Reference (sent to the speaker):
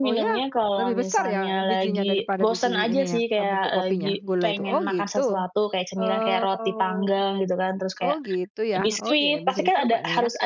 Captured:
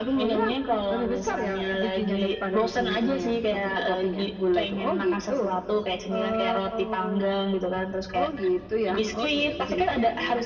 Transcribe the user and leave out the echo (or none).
none